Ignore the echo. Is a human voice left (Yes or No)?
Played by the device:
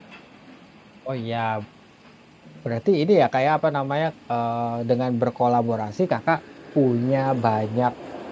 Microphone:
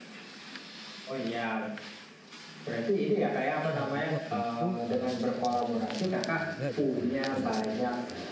Yes